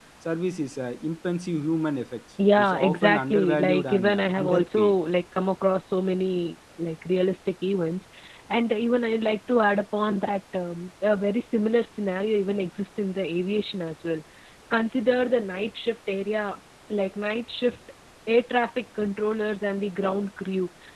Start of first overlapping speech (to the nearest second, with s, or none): 2 s